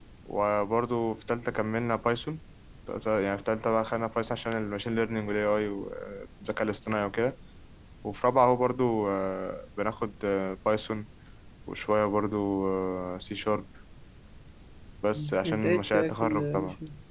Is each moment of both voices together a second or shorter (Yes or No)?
No